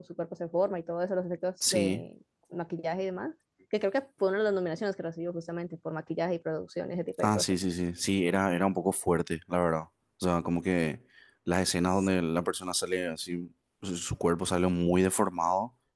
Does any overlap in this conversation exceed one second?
No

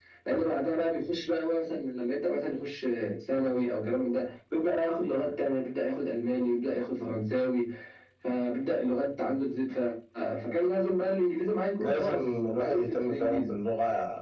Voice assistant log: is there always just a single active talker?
No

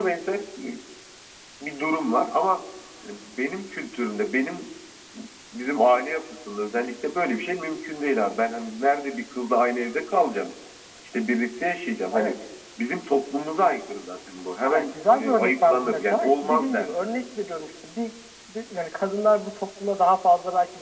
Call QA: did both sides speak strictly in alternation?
No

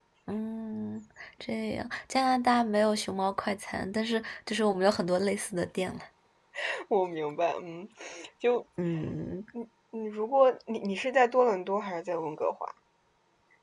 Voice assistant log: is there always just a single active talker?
Yes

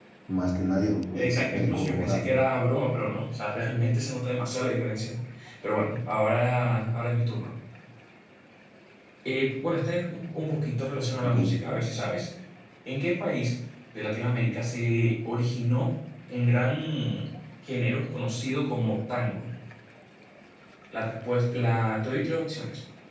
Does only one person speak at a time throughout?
No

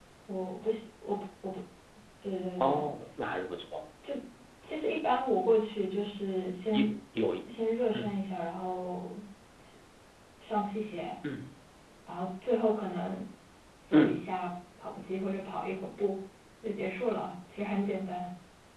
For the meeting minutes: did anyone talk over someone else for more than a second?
No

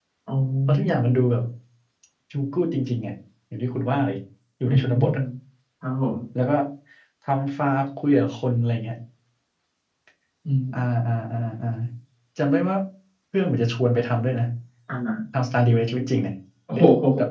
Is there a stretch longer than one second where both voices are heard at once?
No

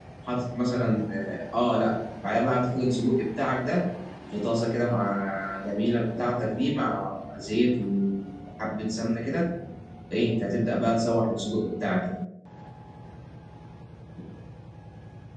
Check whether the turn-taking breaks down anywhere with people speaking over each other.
No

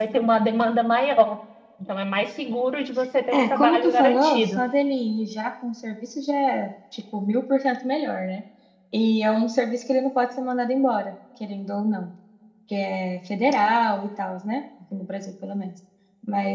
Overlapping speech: Yes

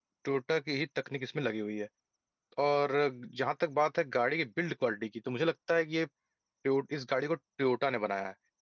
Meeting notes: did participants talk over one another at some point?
No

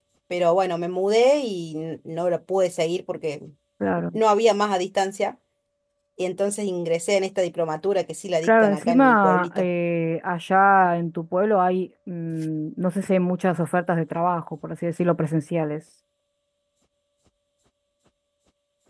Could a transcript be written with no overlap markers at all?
No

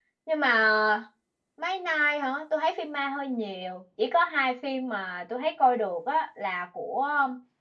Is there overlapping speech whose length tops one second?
No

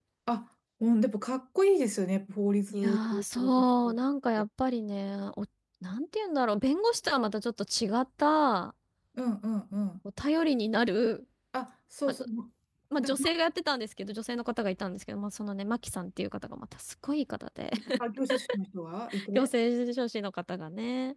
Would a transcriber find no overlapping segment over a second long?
No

